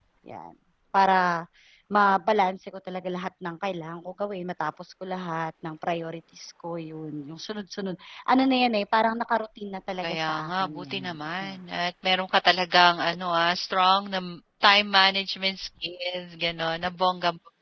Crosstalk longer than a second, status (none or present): present